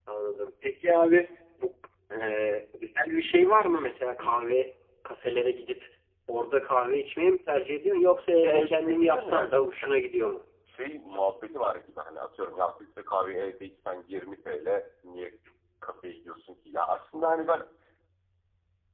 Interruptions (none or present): present